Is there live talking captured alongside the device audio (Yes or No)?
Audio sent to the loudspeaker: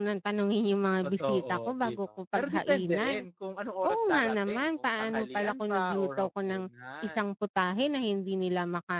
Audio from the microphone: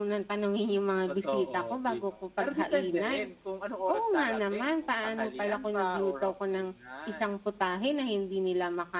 No